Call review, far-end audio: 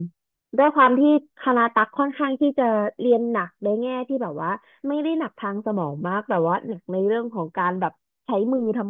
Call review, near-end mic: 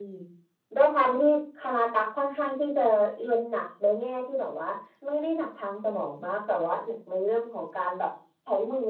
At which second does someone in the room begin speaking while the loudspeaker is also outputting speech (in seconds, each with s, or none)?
none